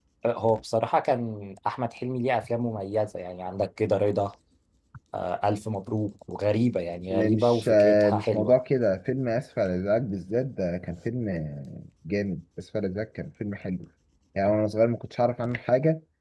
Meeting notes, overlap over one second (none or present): present